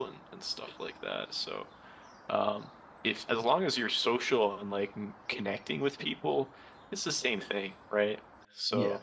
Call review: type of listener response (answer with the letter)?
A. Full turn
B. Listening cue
B